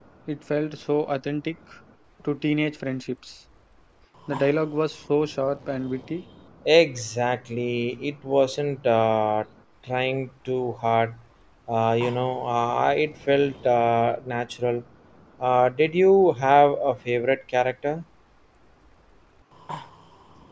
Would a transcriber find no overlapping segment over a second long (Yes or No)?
Yes